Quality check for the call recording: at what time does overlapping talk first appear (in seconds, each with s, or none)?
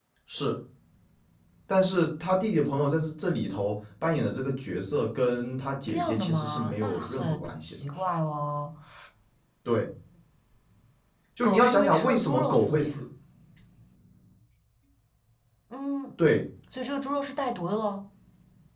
5.9 s